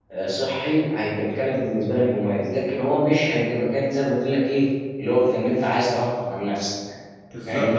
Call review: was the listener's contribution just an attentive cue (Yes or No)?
No